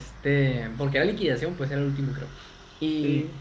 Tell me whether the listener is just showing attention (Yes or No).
Yes